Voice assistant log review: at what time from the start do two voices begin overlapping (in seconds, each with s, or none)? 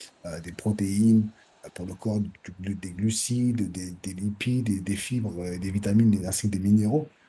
none